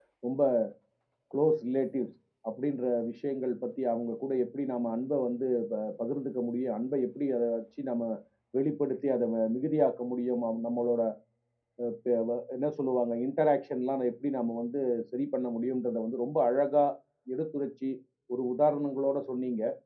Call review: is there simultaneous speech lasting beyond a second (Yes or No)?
No